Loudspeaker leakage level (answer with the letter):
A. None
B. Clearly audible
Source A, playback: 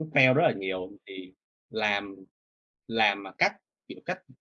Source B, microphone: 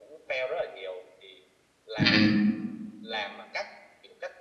B